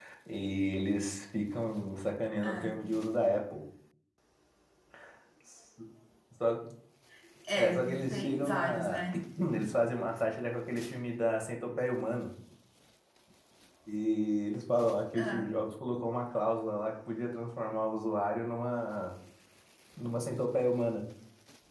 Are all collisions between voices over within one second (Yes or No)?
No